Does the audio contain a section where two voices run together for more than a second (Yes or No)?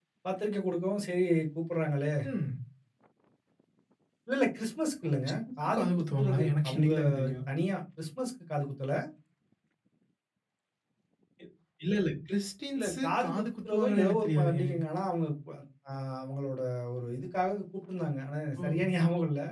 Yes